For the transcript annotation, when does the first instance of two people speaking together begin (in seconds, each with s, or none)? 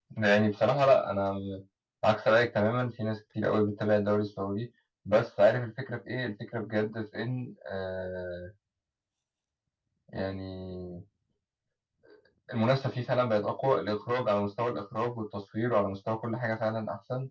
none